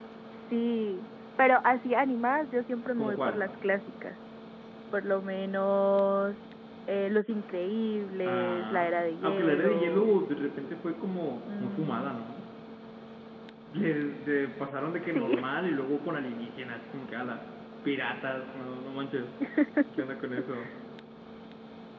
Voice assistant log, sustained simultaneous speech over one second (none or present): present